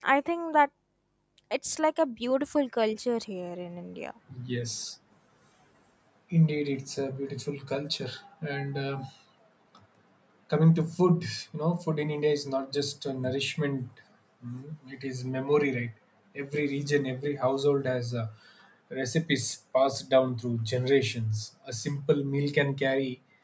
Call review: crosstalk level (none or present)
none